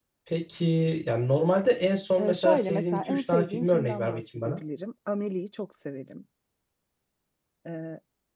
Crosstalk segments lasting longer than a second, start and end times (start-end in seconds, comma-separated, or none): 2.2-4.6